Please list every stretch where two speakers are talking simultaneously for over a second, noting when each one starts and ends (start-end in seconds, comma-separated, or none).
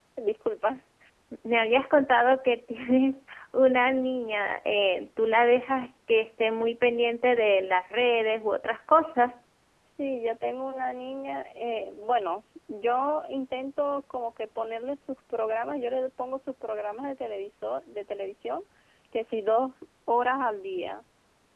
none